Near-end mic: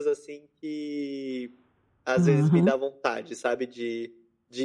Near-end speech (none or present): present